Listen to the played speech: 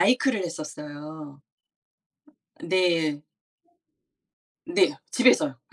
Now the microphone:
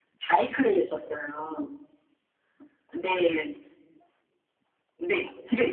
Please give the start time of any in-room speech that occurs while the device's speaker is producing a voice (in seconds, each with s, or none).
none